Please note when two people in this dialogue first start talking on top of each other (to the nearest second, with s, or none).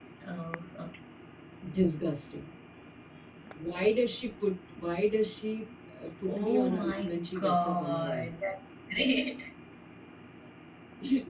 6 s